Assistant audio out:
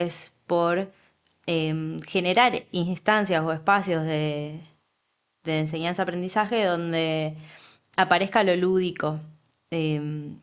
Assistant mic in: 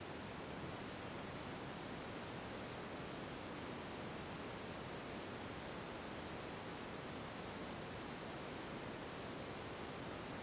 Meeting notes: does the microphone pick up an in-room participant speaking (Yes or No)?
No